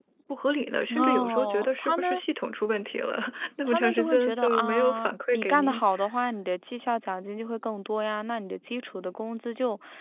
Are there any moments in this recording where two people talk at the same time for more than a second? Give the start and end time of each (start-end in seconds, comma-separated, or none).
0.9-2.2, 3.6-5.8